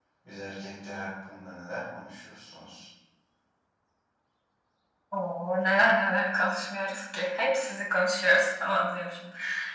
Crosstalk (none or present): none